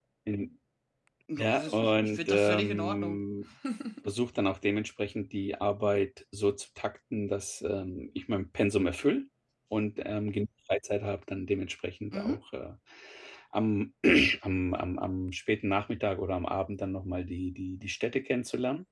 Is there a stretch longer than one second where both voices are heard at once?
Yes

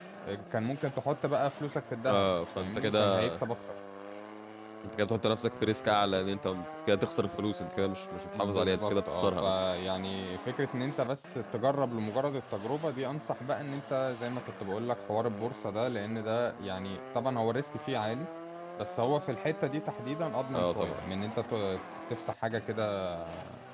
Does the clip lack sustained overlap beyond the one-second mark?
No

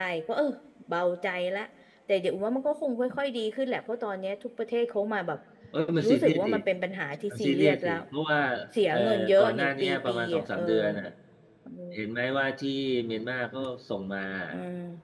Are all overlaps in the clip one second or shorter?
No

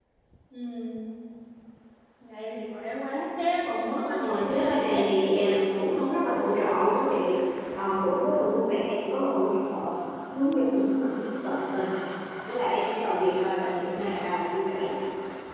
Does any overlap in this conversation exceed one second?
Yes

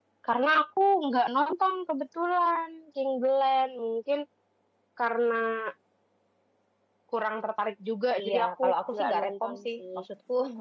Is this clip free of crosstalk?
No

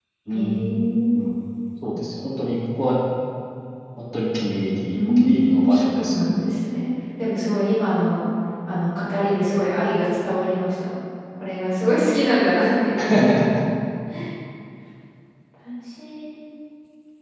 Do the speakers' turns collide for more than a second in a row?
Yes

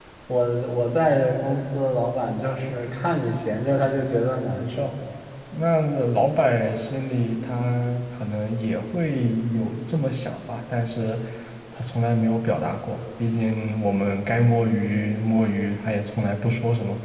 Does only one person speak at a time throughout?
Yes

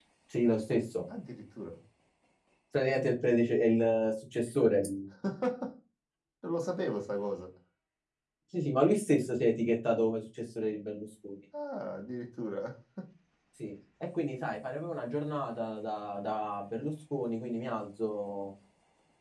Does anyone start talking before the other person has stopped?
No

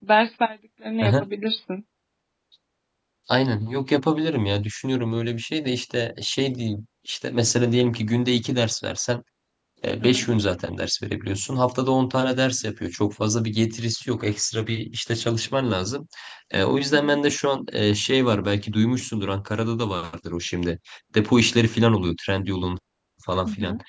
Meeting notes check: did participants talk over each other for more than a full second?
No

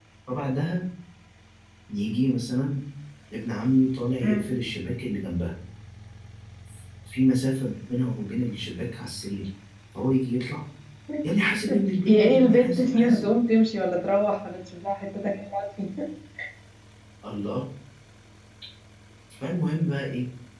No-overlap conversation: No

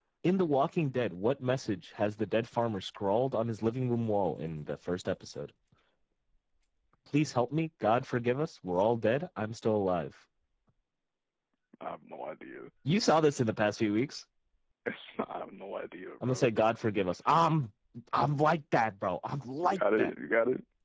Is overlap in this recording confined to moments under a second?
Yes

